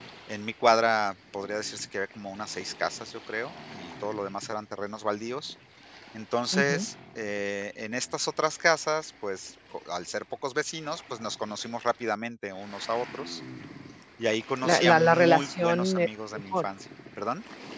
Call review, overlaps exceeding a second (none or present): present